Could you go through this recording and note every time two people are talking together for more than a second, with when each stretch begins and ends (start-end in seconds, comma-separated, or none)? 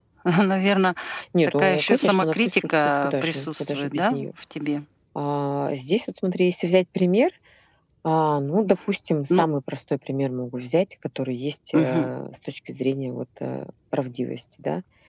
1.6-4.2